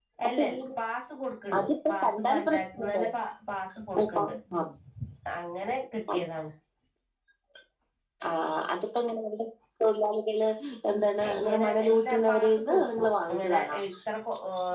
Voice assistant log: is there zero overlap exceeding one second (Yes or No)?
No